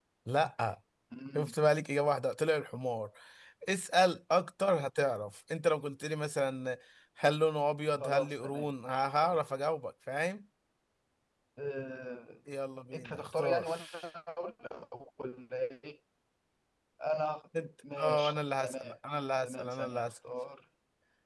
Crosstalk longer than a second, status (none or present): present